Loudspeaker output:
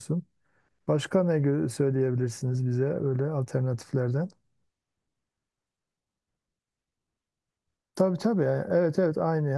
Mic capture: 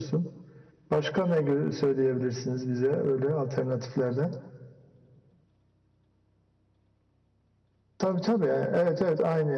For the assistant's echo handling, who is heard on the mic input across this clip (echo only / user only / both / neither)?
echo only